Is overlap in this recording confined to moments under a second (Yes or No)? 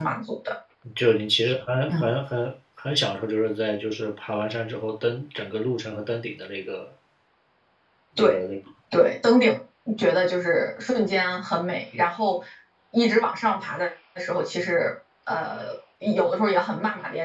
Yes